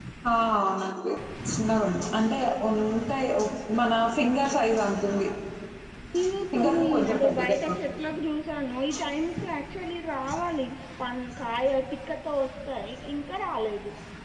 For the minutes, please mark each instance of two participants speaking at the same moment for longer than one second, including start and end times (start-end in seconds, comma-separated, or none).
6.6-7.9